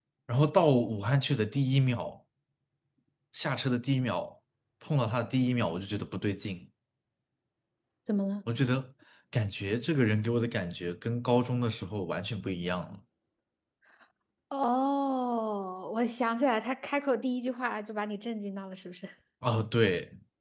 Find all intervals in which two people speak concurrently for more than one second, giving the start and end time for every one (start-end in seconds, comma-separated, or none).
none